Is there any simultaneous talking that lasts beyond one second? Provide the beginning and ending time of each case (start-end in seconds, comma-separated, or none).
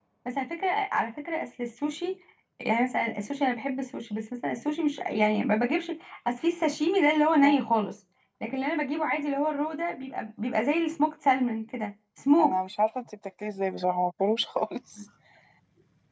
none